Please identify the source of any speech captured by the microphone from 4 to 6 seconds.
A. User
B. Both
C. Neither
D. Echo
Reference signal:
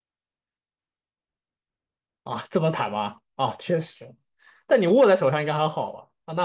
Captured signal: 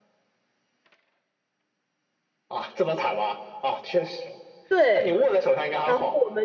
B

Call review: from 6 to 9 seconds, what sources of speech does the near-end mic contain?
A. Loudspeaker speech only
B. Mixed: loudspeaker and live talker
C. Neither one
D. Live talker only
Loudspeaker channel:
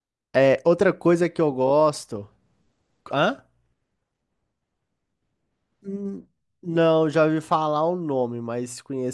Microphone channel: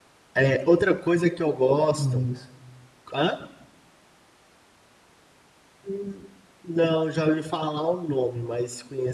A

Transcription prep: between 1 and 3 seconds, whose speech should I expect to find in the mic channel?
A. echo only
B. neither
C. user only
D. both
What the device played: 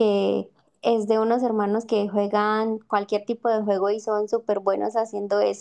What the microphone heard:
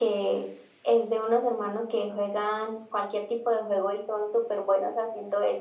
A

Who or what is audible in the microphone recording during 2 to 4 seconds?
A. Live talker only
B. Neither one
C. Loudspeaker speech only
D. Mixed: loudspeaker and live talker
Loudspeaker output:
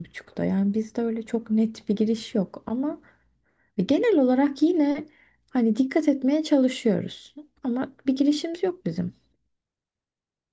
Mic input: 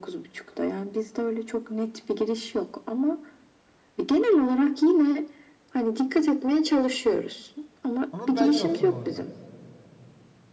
C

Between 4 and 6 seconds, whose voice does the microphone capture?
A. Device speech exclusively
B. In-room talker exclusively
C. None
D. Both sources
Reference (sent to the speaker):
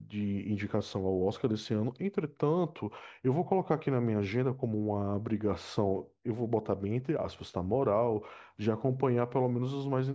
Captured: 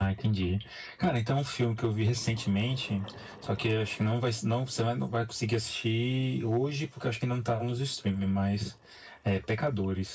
B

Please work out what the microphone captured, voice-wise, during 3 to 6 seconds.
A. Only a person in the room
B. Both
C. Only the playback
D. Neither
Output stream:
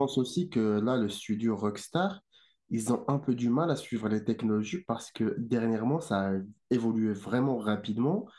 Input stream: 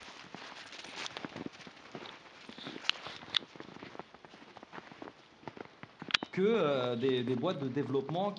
D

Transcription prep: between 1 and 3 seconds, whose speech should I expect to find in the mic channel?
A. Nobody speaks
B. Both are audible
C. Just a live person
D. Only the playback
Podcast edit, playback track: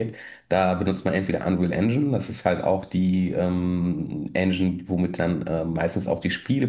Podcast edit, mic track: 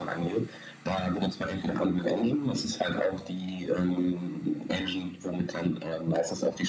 D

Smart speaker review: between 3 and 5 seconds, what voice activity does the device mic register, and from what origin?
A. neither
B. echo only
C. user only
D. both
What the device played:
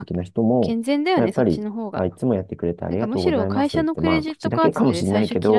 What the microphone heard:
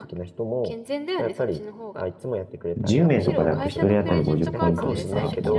D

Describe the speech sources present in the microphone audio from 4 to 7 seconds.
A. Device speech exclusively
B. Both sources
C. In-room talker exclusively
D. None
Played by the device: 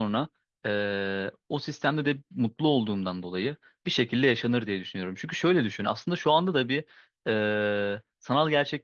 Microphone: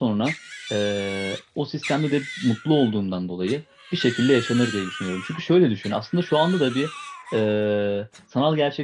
A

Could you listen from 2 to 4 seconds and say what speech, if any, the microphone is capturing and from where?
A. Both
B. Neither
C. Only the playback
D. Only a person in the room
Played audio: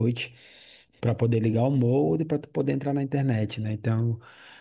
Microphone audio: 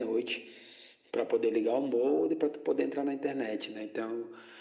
C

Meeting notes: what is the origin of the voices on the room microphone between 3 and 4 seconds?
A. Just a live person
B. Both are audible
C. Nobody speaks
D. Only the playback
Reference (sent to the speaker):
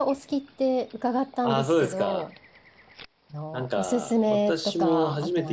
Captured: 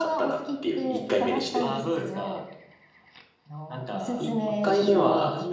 D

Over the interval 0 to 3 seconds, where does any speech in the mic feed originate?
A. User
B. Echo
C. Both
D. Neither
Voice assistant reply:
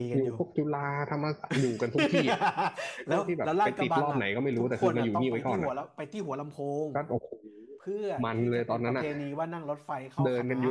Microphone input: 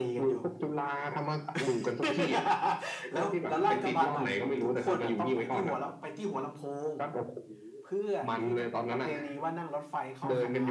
B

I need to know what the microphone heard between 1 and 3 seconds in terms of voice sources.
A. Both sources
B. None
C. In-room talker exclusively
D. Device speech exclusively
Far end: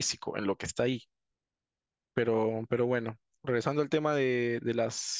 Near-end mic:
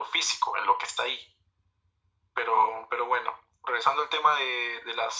D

